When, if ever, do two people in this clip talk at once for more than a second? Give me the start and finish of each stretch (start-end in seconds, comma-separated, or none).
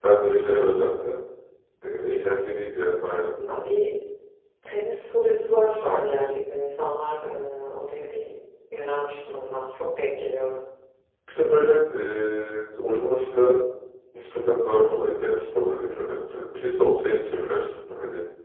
none